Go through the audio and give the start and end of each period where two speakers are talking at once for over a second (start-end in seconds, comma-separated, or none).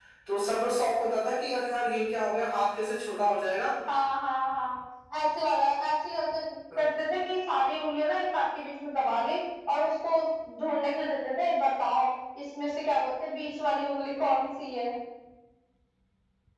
none